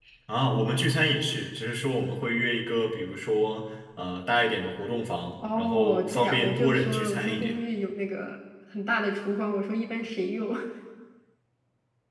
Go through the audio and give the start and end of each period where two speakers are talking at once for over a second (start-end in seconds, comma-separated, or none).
5.5-7.6